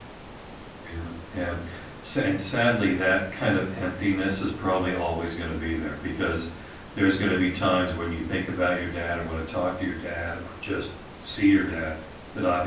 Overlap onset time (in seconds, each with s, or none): none